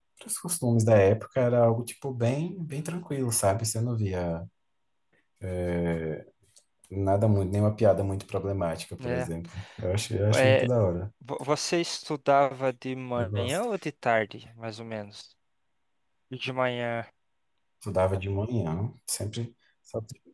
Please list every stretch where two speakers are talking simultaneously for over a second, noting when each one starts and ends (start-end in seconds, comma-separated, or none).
none